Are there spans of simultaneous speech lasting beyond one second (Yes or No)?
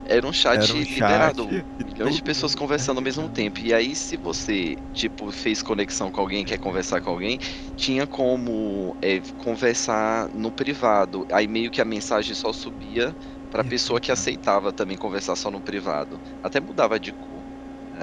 Yes